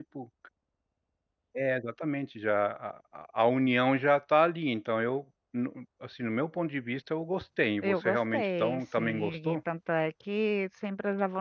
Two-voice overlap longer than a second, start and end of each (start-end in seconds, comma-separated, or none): 7.8-9.6